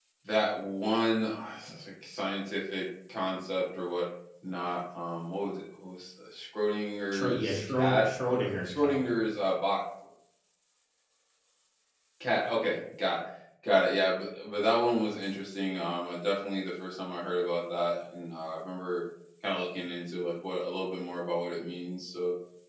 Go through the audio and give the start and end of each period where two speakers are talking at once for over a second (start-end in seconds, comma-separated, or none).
7.1-9.0